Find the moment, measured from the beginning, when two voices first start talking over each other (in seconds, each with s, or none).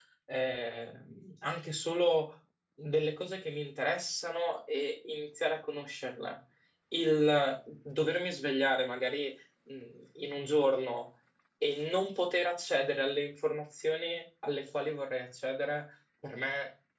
none